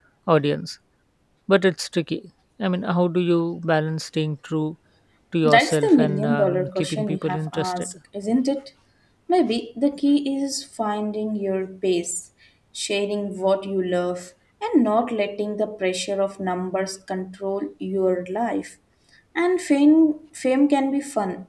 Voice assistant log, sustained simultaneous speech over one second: present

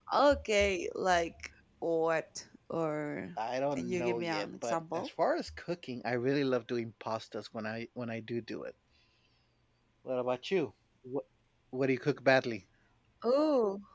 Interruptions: present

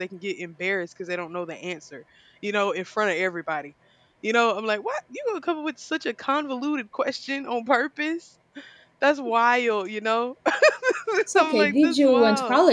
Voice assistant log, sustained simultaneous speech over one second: present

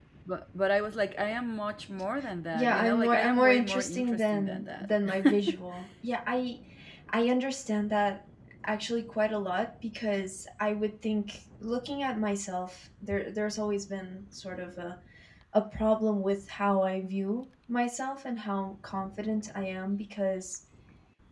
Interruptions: present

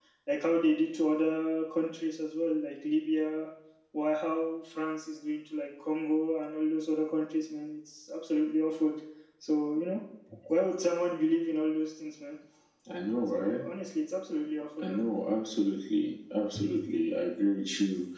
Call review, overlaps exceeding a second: none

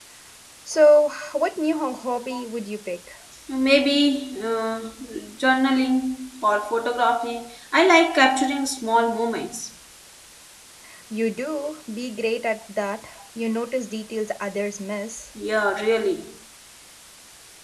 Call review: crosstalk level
none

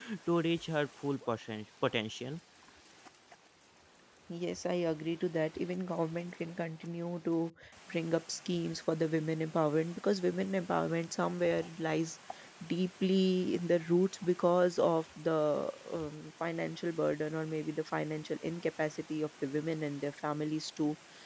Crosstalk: none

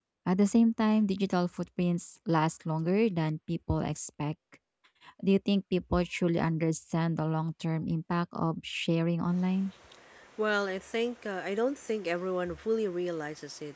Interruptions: none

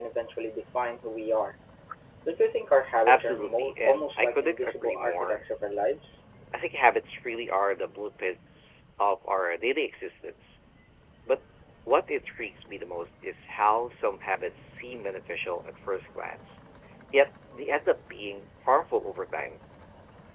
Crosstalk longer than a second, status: present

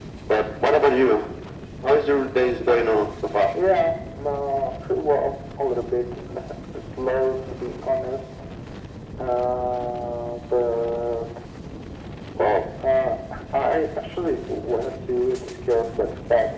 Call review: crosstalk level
none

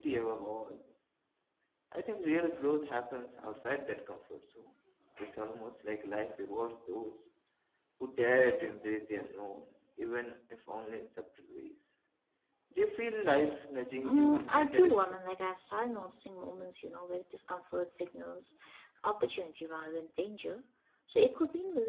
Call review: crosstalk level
present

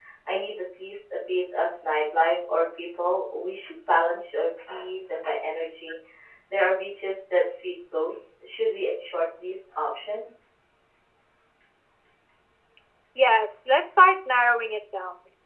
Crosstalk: none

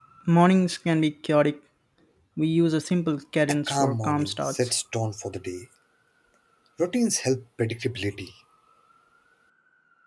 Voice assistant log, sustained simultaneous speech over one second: present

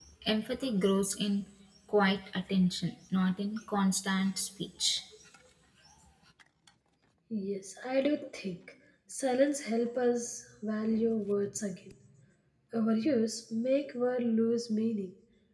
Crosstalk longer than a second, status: none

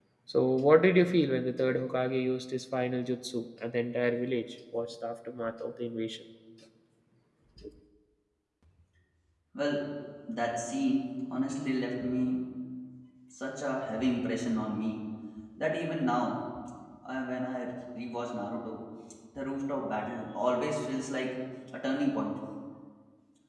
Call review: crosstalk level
none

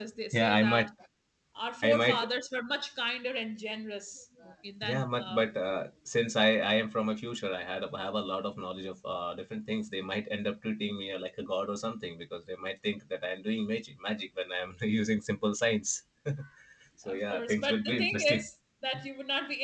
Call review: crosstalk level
present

